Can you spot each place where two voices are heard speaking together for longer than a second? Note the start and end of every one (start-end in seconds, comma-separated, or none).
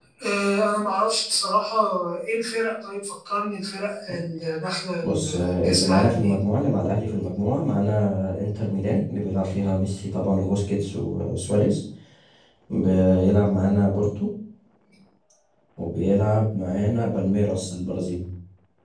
5.0-6.3